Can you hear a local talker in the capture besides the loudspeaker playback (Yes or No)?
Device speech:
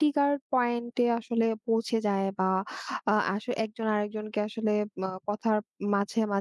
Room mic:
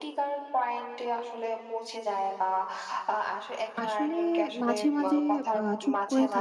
Yes